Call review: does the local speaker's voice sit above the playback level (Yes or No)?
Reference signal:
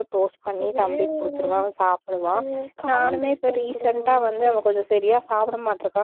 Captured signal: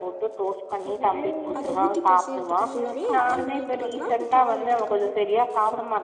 No